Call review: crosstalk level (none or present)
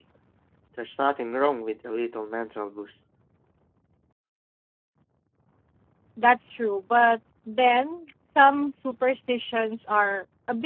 none